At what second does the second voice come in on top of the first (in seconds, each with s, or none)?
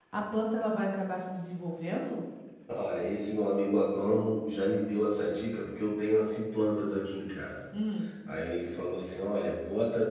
none